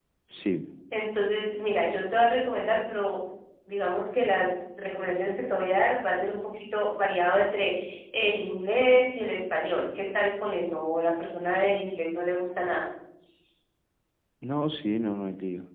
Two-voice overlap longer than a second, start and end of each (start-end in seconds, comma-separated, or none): none